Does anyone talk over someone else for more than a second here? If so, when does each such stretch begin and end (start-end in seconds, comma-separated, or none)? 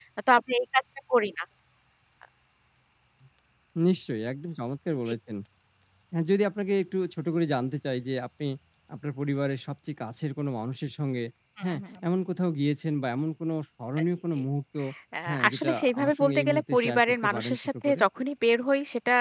15.3-18.0